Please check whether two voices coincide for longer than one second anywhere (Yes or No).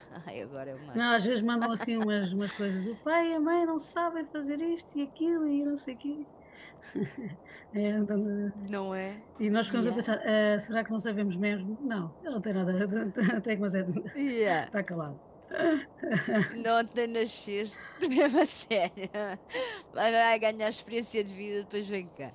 No